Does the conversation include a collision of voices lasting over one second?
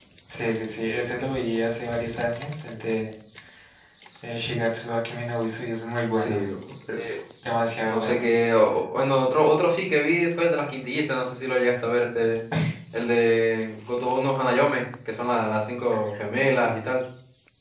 No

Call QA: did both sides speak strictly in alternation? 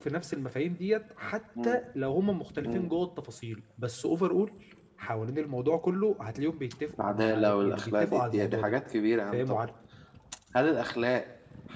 No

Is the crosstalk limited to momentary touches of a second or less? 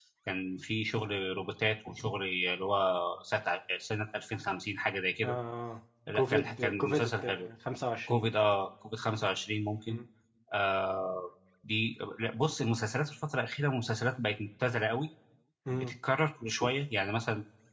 No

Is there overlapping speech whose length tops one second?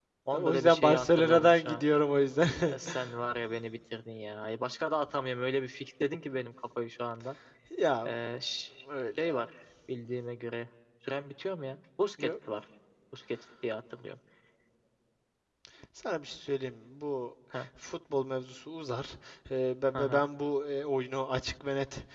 Yes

